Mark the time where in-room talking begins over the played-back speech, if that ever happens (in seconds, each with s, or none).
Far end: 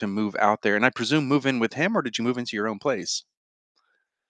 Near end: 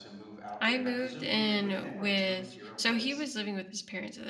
0.6 s